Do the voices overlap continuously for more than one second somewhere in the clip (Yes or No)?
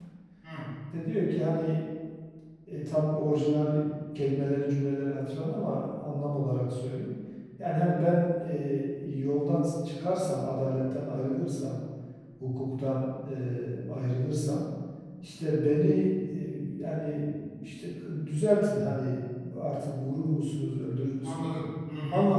No